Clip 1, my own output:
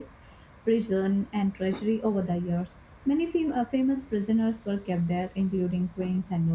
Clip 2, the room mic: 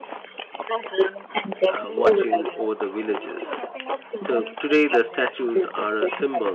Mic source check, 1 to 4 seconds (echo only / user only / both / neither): both